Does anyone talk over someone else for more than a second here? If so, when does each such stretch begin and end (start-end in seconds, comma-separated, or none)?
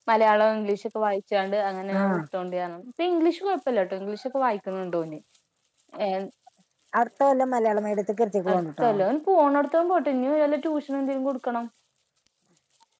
none